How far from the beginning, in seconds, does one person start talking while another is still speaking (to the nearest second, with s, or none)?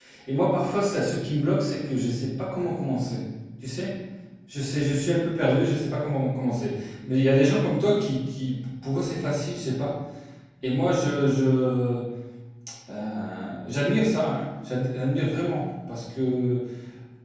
none